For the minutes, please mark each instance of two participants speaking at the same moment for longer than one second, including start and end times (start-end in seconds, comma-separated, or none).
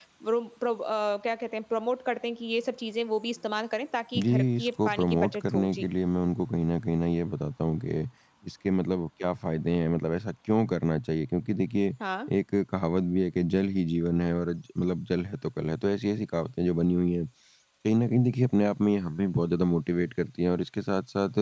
4.2-5.9